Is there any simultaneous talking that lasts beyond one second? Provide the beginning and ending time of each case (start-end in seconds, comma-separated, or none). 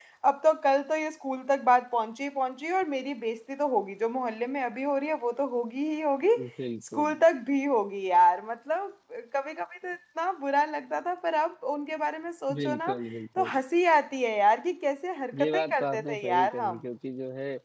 15.4-16.8